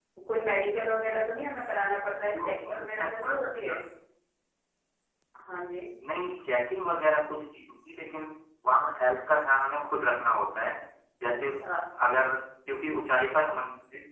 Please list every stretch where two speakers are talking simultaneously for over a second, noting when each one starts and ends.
2.4-3.8

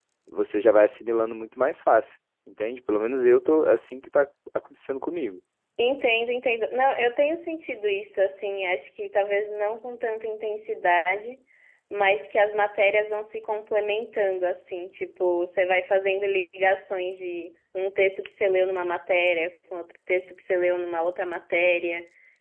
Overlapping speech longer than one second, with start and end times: none

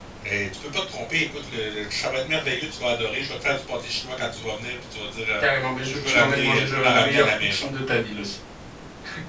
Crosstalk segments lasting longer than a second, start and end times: 5.9-7.6

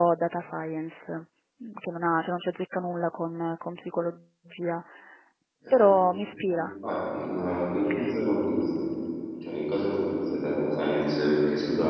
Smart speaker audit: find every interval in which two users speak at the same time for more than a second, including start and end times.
none

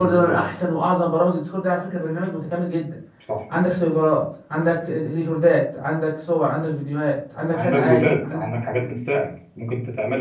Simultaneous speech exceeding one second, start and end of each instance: 7.5-8.8

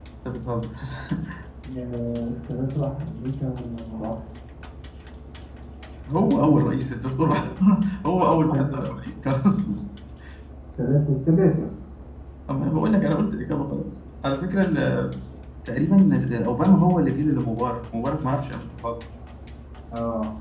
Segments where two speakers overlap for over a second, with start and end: none

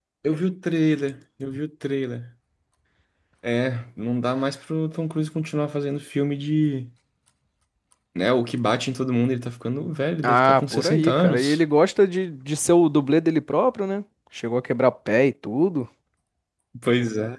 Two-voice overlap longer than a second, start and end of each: 10.2-11.6

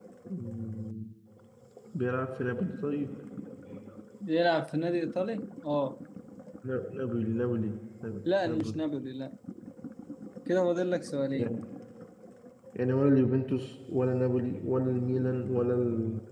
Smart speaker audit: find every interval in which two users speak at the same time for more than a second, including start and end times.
none

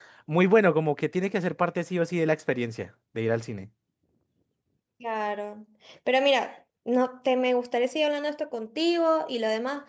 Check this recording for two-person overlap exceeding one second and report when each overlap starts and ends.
none

